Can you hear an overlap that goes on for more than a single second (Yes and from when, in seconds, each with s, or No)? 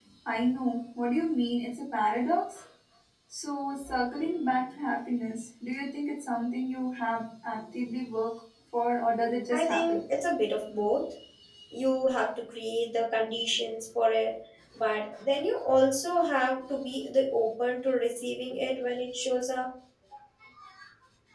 No